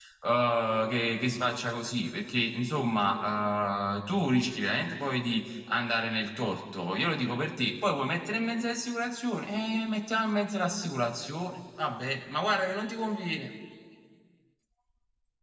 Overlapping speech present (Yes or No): No